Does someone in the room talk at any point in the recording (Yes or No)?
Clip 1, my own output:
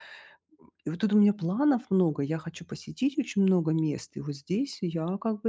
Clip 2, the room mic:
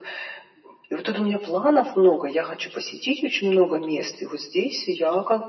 No